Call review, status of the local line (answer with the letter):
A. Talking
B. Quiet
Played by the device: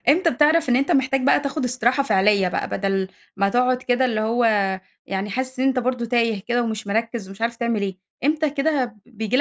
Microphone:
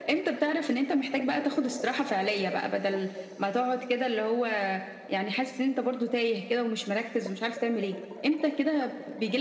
B